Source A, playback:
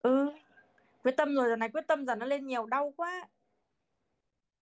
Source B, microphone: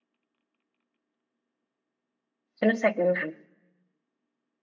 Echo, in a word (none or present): none